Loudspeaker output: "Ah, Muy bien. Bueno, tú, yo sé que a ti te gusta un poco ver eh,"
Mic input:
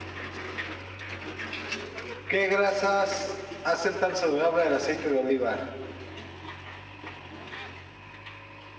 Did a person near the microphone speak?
Yes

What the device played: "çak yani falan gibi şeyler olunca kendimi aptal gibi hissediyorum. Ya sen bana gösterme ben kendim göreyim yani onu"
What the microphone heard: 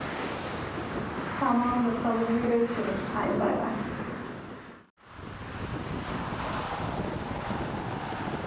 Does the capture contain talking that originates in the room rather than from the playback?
Yes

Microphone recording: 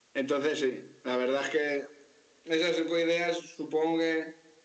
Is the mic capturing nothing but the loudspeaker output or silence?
Yes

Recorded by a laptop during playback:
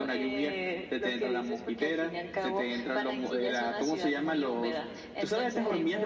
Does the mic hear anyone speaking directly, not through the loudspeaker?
No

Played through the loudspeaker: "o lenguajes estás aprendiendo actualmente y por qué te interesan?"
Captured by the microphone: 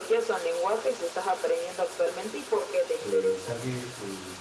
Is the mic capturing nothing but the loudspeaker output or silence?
No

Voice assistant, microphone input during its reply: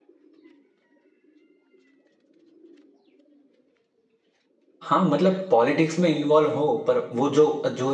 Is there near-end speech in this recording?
Yes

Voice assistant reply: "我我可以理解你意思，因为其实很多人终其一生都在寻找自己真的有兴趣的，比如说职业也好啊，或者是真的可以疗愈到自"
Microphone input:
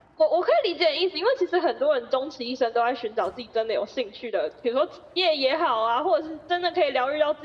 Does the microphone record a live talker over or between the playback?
No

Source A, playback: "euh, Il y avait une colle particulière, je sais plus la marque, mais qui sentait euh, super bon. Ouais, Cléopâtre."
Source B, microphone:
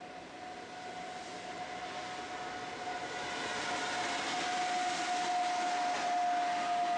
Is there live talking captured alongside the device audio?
No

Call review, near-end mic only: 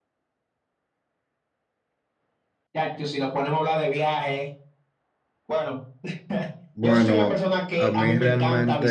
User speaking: Yes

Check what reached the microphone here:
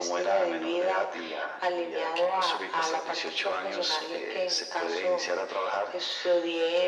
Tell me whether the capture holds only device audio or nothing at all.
Yes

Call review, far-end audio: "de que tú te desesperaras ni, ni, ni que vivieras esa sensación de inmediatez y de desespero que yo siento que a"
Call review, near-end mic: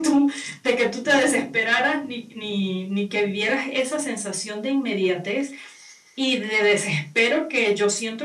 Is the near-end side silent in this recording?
Yes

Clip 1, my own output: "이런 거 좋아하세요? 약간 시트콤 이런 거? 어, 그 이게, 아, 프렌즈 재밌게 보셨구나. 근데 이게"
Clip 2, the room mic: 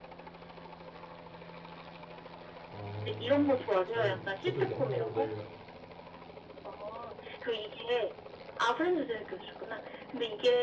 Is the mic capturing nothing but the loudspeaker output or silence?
No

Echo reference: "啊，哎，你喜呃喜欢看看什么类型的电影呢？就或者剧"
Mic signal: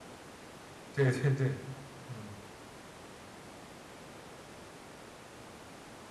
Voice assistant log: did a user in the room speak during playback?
Yes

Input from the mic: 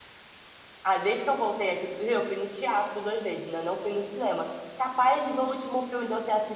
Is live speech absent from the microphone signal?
No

